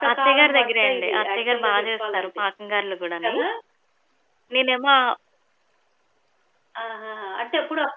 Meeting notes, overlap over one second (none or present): present